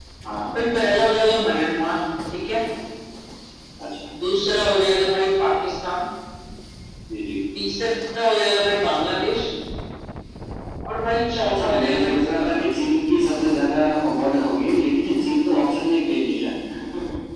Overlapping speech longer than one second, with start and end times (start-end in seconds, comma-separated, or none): 11.4-12.6